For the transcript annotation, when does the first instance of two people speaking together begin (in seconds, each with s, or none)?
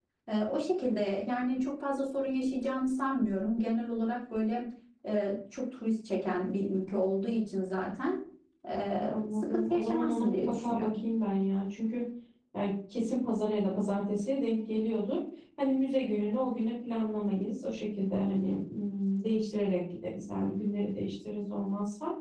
9.1 s